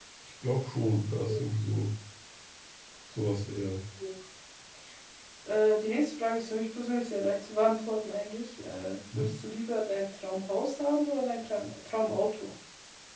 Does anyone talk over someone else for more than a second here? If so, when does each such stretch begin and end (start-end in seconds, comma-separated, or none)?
none